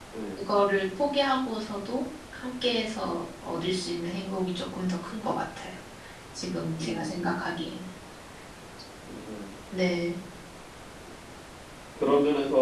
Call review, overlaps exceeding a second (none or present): none